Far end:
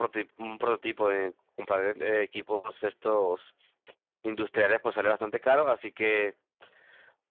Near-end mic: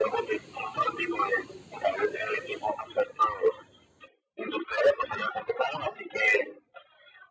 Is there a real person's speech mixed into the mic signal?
No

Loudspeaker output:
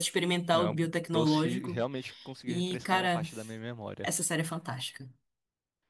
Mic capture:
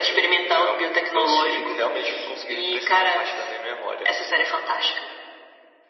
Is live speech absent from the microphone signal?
Yes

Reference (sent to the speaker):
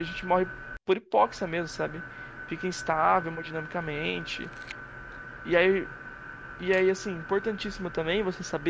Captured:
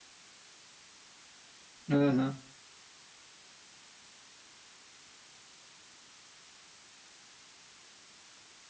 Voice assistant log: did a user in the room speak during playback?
Yes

